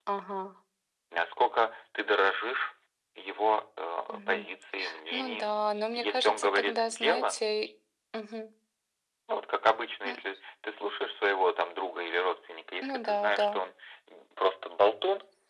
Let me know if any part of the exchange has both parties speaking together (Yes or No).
Yes